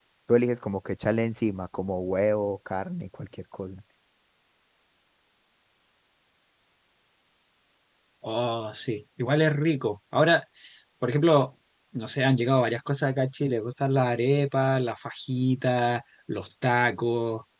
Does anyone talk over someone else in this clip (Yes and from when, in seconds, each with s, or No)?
No